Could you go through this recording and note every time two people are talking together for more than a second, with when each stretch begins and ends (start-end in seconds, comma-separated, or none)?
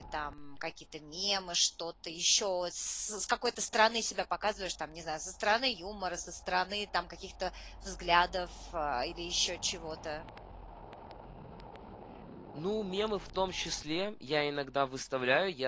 none